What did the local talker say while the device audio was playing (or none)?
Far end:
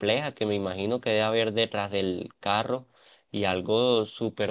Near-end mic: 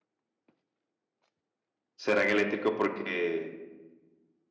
serán eléctricos porque